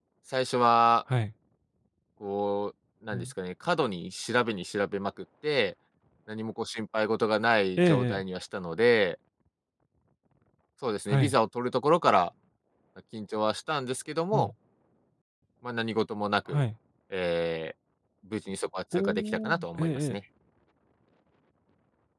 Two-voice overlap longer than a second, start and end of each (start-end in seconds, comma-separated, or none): 18.9-20.1